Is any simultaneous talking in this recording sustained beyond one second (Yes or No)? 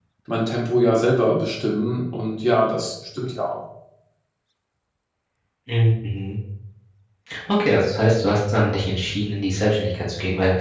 No